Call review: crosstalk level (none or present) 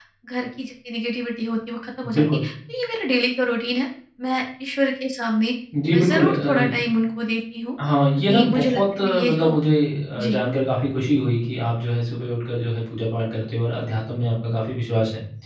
present